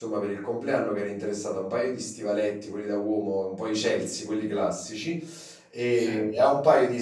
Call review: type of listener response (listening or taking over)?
listening